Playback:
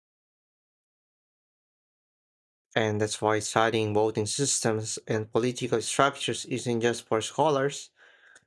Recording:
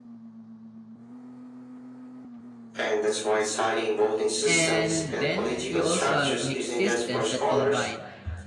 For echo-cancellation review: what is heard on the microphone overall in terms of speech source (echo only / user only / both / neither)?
both